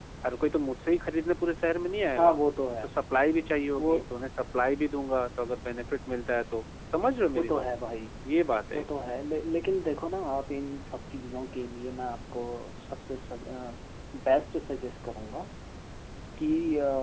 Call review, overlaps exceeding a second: none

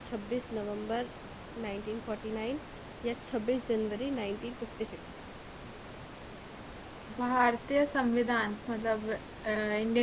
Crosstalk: none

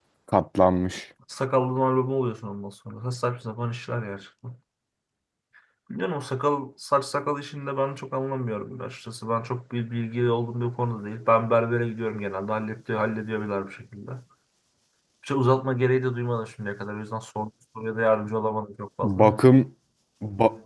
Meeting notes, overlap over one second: none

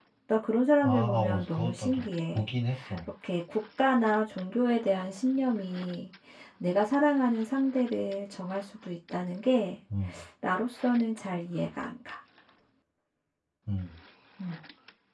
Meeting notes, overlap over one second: present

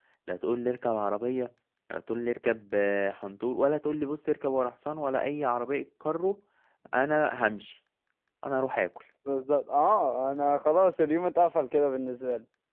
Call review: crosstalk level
none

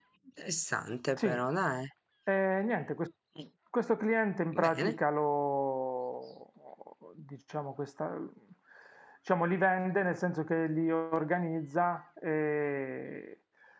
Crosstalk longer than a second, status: none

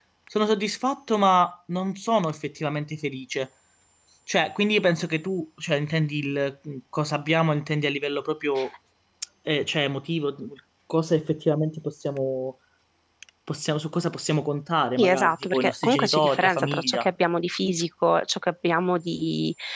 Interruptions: present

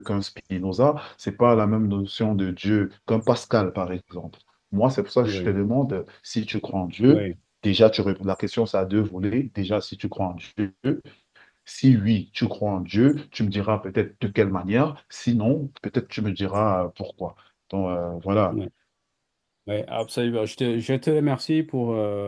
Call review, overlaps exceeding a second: none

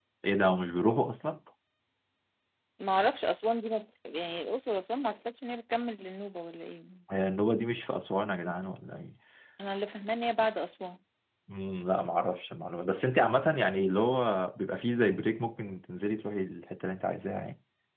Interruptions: none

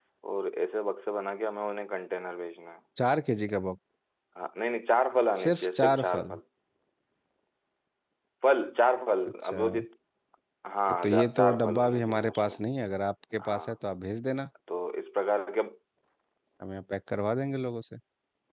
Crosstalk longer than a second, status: present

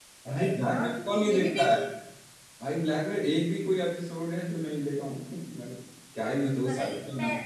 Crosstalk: present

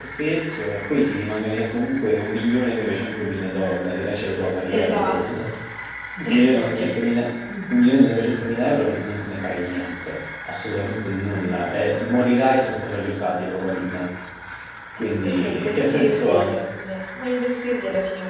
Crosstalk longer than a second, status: present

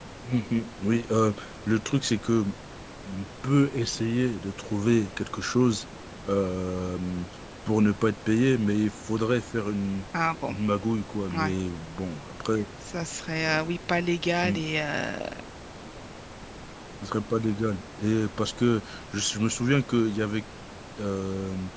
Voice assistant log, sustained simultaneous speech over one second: none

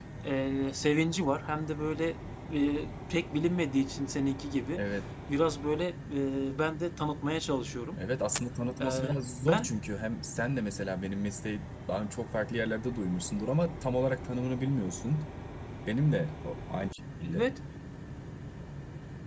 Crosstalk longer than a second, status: none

